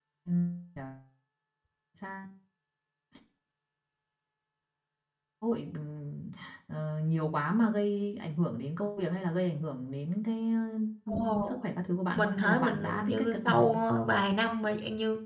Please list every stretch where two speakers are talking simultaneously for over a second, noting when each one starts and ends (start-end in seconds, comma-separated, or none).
12.2-13.8